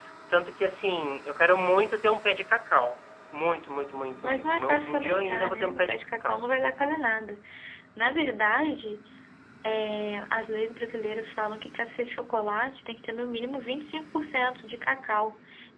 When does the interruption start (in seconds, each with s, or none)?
4.2 s